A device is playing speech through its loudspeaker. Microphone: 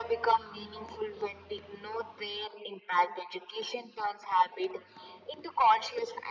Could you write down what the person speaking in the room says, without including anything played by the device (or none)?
none